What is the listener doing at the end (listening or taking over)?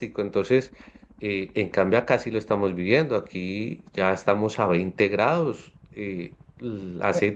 listening